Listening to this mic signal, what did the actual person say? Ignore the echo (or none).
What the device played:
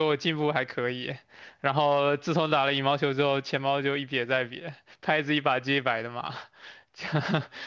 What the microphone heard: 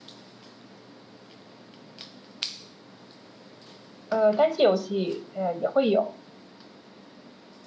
呃，单机游戏呃也会有，